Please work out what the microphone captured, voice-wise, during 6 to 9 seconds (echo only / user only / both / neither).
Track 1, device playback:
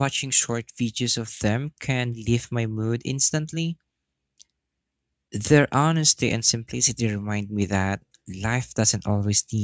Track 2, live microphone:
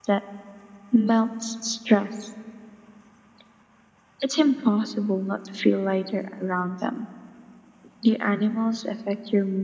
user only